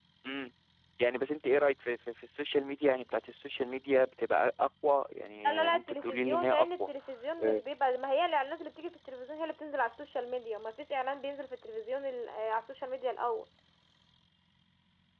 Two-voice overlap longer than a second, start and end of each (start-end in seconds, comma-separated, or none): 5.5-6.9